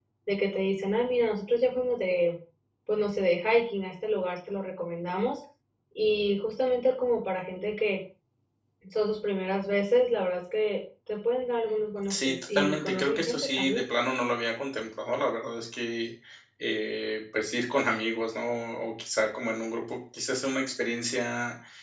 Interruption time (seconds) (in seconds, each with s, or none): 12.1 s